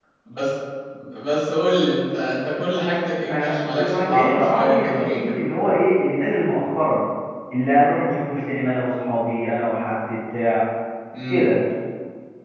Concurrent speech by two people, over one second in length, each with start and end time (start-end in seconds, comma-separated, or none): 3.3-5.4